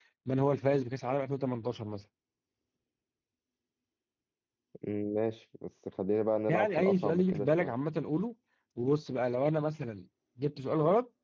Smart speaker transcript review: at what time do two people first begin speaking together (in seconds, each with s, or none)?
6.5 s